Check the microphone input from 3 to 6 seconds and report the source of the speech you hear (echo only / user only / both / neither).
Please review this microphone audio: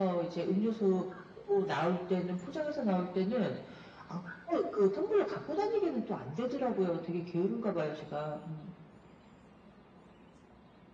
echo only